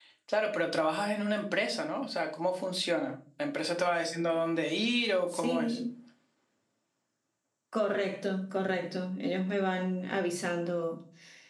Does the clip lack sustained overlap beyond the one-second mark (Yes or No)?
Yes